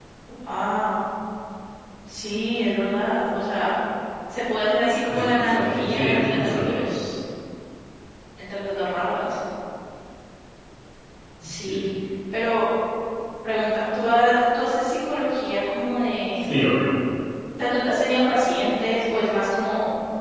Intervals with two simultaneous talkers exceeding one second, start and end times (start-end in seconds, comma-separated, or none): 5.1-6.9